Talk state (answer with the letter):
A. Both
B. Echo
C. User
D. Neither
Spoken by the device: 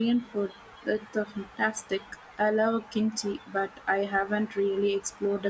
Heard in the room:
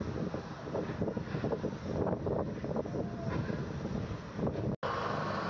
D